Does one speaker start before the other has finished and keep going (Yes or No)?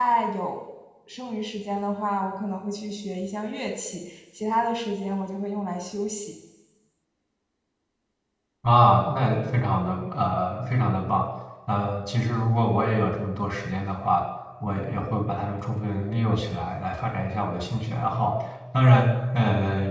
No